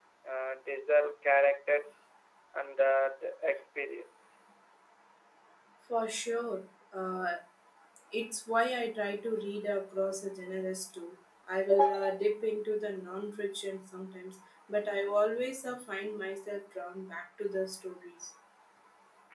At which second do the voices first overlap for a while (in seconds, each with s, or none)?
none